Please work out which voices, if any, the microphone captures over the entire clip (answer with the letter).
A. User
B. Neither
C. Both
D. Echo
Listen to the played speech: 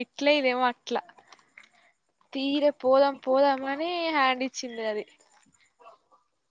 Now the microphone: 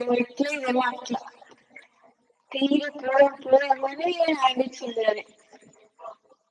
D